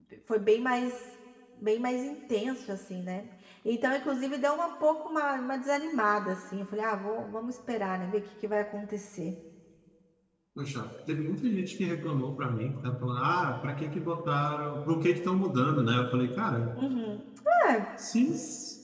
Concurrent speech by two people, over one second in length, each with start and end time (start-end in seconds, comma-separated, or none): none